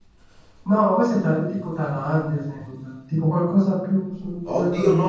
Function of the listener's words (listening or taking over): taking over